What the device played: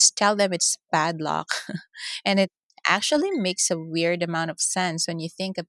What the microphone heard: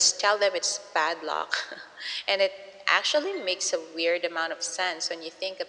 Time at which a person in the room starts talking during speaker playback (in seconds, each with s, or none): none